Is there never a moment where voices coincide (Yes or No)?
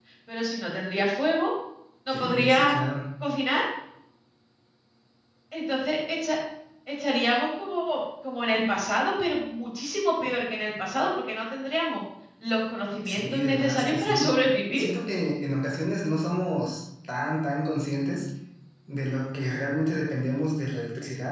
No